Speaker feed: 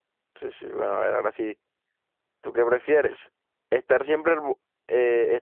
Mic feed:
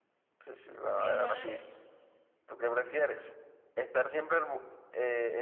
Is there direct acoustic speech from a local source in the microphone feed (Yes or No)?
Yes